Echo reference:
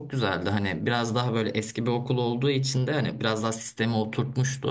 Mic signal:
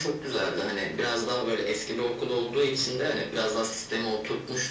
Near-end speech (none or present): none